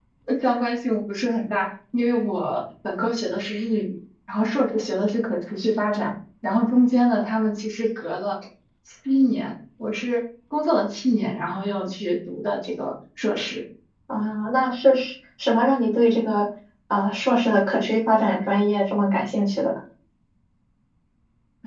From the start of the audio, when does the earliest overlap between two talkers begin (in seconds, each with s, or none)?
none